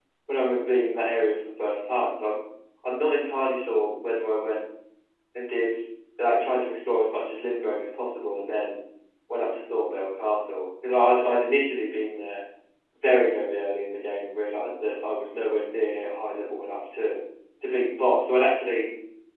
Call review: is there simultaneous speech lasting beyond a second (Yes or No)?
No